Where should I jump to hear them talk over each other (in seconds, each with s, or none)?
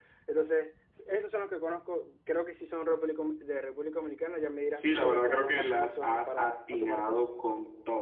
4.8 s